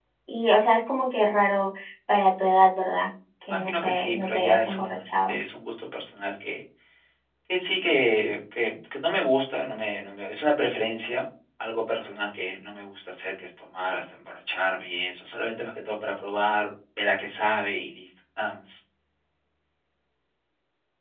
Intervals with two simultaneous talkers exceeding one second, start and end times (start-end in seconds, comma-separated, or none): 3.5-5.4